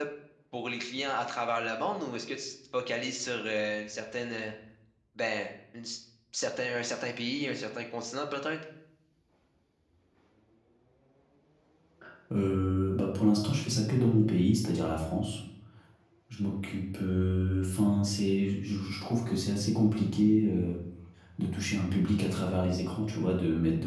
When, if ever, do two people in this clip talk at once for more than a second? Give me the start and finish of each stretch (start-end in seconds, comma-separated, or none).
none